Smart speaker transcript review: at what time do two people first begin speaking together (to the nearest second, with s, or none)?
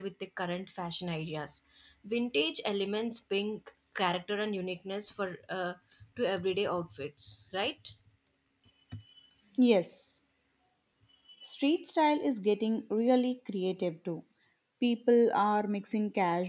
none